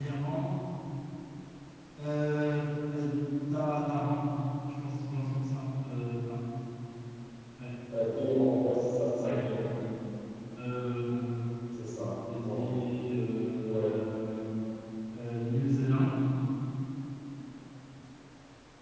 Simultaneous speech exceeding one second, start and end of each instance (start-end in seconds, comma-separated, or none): none